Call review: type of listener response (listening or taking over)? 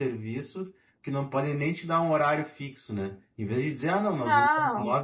listening